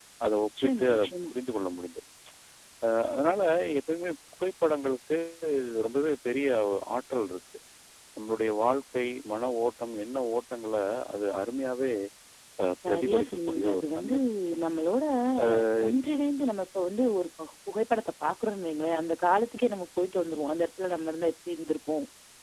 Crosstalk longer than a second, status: present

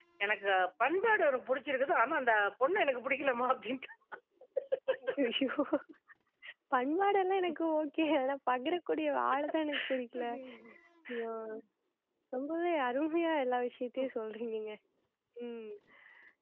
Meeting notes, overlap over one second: none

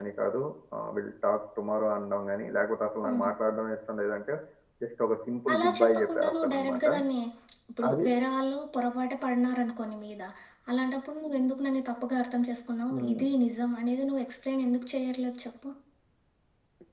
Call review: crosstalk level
present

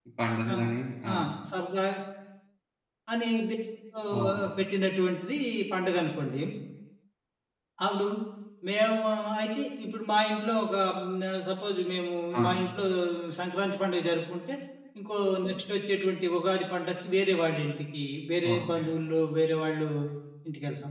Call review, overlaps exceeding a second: none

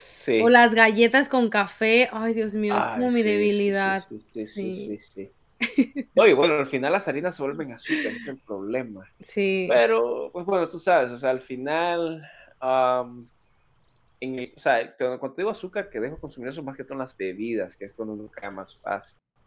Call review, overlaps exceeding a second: present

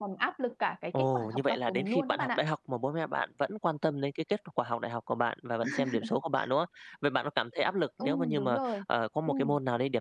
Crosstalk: present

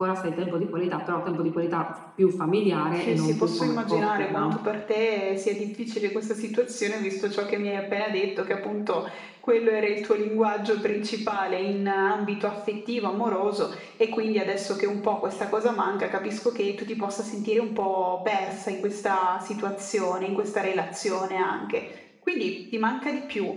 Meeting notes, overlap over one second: present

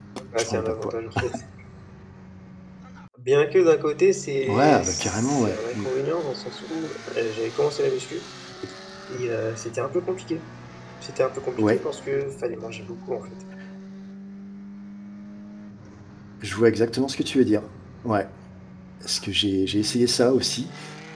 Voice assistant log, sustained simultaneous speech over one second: present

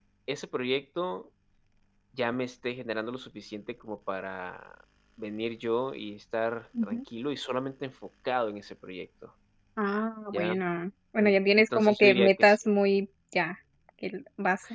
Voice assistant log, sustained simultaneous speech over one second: present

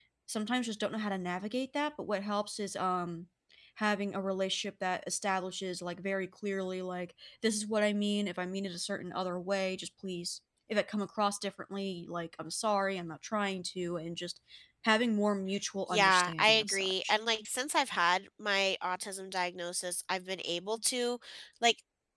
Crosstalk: present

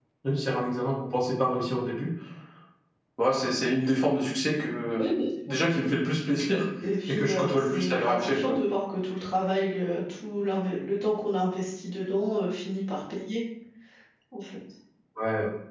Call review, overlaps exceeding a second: present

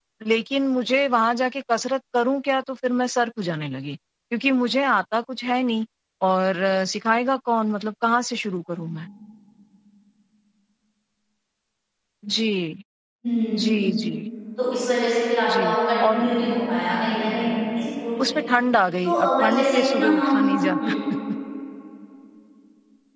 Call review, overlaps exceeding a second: present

